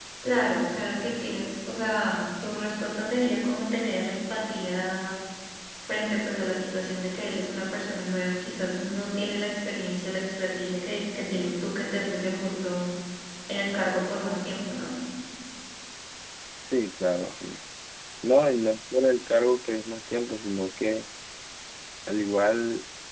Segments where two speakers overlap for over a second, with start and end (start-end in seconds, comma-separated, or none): none